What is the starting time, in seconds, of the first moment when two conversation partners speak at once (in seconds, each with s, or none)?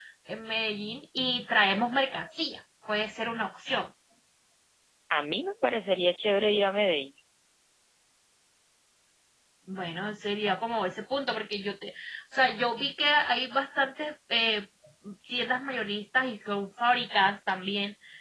none